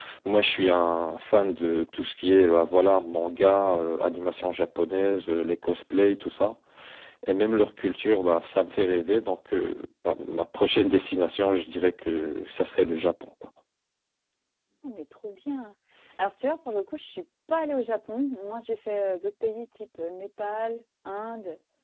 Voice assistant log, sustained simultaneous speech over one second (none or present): none